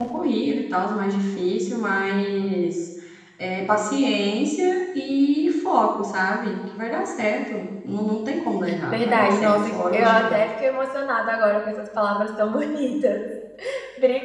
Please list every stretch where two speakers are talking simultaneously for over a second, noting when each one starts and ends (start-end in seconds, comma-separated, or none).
8.9-10.4